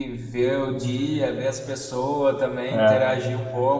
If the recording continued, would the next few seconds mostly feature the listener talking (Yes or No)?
No